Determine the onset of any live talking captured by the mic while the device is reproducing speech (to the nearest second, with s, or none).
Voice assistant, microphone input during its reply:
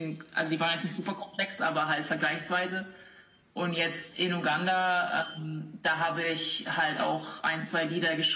none